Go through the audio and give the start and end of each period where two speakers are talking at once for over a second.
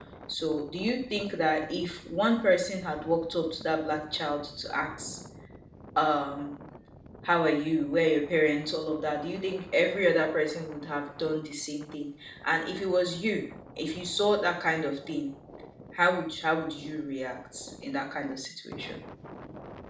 none

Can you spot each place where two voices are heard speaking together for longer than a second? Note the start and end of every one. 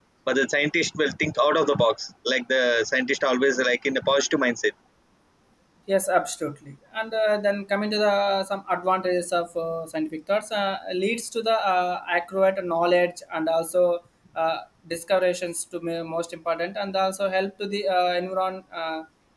none

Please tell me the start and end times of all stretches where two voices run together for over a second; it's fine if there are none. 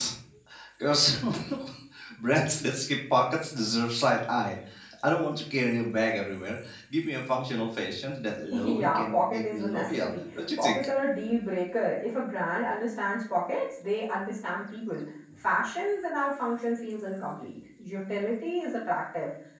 8.6-10.8

